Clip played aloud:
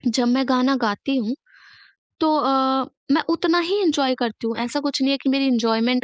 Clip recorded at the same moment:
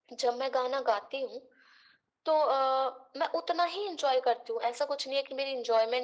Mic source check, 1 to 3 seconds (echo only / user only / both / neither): echo only